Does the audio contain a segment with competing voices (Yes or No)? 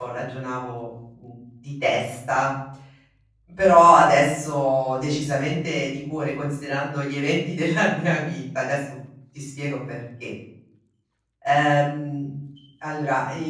No